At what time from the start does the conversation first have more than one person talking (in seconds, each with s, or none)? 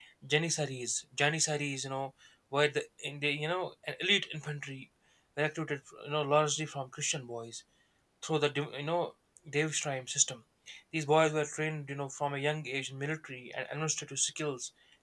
none